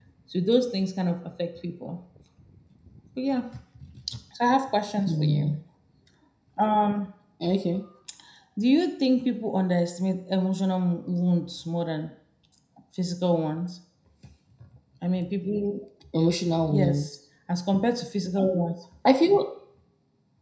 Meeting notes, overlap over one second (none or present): none